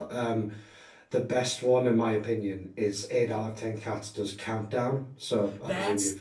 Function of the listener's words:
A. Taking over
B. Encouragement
A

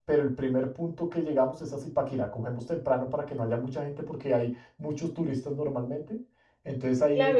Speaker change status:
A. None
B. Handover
B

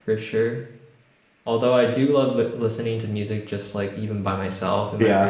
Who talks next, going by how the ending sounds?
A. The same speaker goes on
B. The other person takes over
A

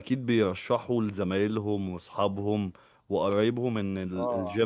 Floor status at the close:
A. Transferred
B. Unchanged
B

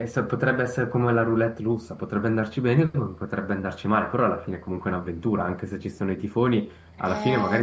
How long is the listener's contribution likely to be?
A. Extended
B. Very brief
A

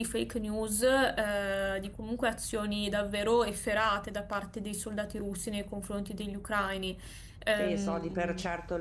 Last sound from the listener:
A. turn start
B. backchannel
A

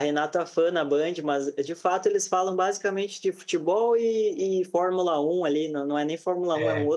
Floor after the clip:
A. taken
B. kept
B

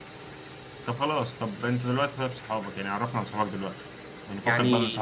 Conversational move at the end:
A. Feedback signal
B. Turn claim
A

